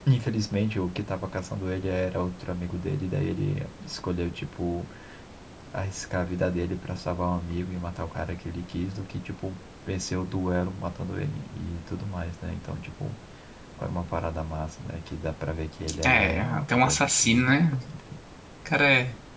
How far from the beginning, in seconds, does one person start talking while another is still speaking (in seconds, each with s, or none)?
16.0 s